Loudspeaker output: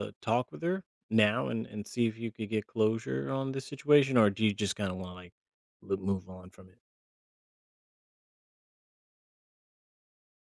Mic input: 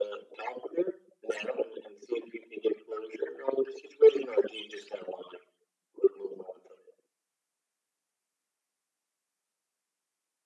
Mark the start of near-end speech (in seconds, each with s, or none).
none